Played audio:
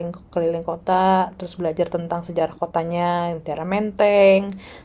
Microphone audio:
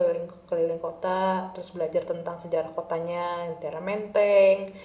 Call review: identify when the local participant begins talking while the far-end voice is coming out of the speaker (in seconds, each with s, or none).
none